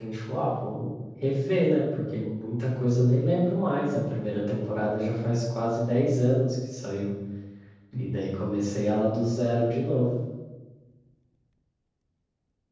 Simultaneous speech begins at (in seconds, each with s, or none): none